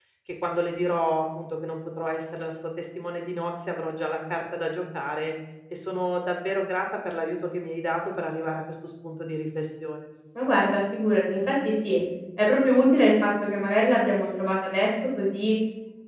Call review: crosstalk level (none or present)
none